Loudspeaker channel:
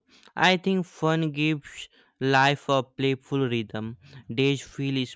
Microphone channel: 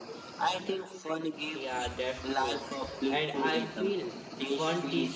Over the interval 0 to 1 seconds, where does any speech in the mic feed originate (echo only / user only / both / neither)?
echo only